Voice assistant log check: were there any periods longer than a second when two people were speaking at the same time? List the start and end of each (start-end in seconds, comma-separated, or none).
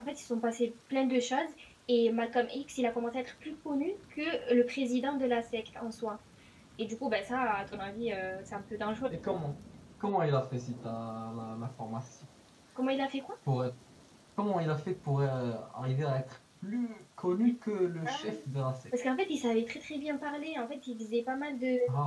none